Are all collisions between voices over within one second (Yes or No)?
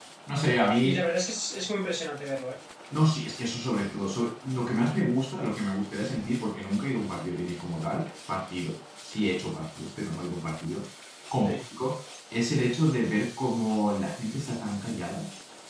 Yes